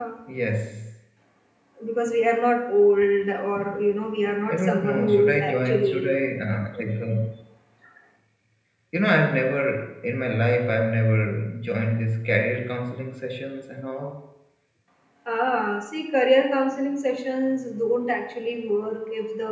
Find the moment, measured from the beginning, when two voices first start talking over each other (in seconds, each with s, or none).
4.5 s